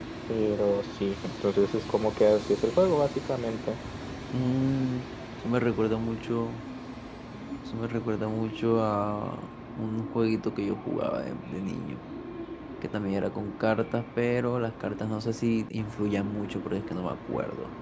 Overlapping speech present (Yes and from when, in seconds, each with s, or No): No